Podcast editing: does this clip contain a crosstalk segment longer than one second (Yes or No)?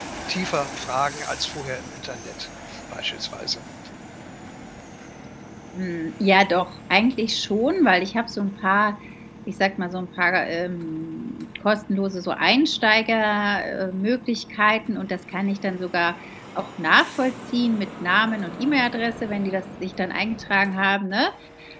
No